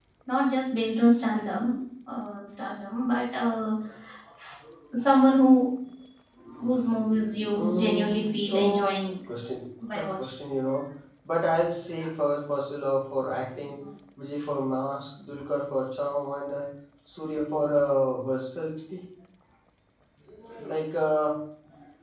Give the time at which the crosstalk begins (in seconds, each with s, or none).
7.5 s